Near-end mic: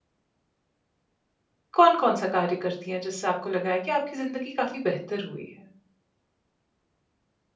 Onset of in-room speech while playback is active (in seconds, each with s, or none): 1.7 s